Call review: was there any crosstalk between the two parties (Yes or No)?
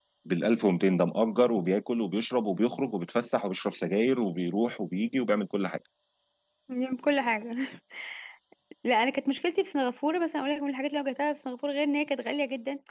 No